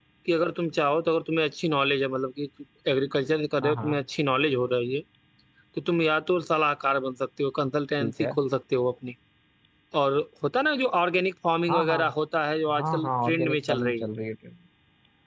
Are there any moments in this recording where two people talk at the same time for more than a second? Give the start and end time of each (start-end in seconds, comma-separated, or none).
12.8-14.1